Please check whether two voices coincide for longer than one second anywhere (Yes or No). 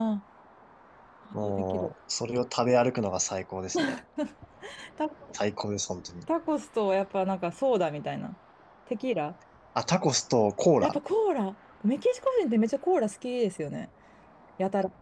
No